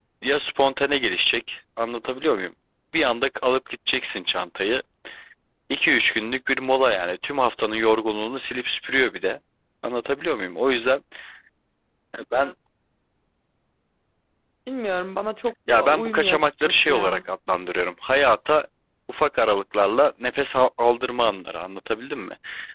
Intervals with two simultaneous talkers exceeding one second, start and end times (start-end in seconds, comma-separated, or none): 15.7-17.2